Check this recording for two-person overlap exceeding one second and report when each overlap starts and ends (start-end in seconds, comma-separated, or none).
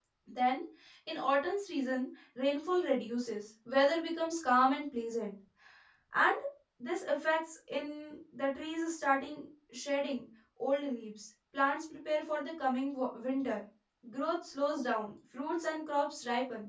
none